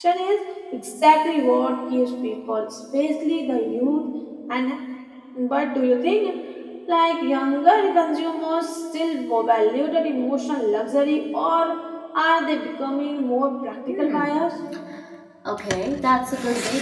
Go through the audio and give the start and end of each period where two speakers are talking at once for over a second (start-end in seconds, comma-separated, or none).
none